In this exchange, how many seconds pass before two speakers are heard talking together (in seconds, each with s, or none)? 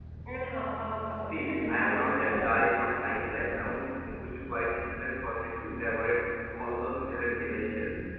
1.3 s